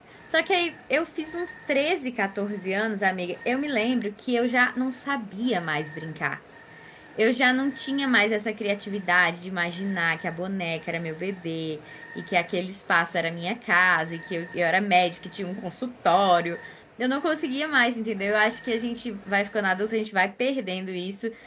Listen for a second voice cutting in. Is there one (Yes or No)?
No